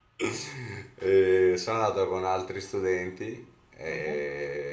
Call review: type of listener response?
listening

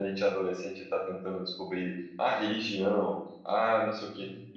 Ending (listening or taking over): listening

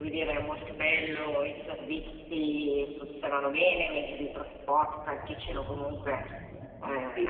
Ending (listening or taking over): listening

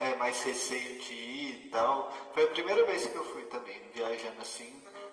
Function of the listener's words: listening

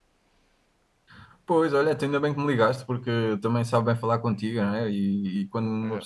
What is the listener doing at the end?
listening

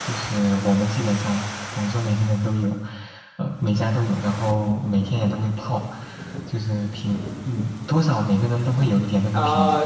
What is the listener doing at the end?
taking over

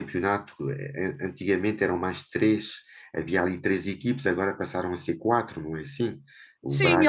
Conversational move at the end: taking over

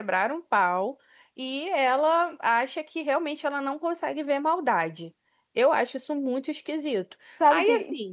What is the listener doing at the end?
taking over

